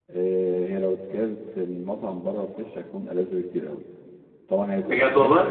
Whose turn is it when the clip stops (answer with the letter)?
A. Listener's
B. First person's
B